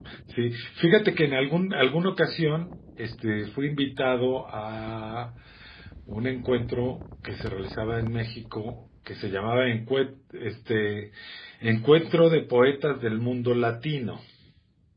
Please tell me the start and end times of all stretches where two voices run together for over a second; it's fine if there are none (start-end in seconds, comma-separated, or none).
none